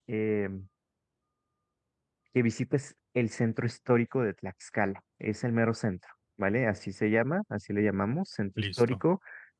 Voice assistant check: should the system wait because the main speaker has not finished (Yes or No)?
Yes